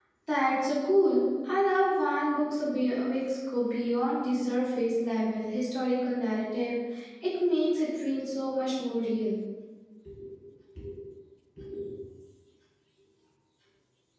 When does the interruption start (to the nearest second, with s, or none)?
none